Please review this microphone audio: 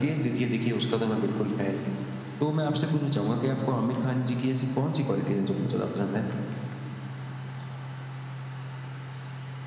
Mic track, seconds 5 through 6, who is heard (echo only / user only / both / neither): echo only